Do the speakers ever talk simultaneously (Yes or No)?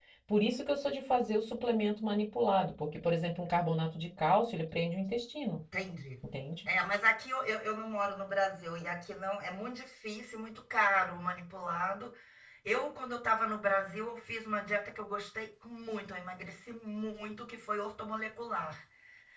No